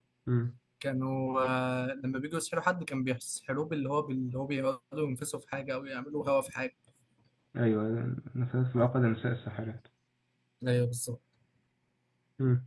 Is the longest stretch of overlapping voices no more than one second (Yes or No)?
Yes